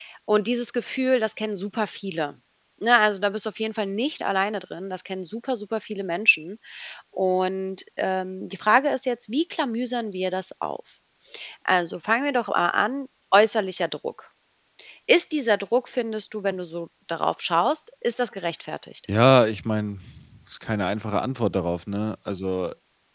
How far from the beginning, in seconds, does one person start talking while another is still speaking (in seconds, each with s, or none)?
none